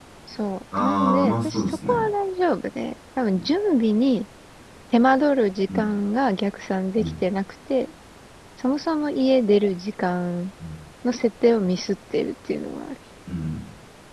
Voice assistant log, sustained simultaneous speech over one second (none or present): present